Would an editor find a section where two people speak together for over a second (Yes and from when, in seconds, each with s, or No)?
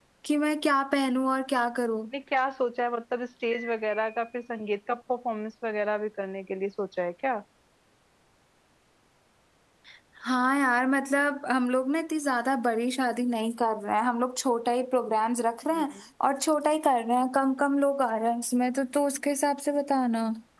No